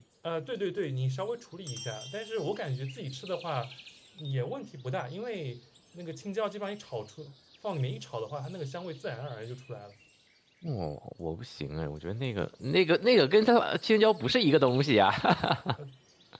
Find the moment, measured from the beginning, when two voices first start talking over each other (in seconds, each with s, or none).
none